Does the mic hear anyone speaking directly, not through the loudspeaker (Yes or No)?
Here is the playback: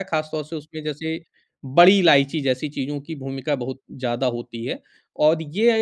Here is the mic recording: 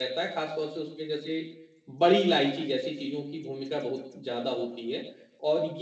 No